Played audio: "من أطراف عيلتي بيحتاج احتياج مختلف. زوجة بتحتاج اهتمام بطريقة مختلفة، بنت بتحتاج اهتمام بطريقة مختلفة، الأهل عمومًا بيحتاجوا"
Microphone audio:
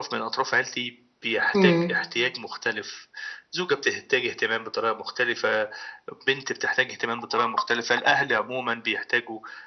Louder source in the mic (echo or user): user